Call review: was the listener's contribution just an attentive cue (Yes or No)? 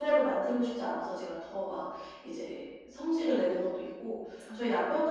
Yes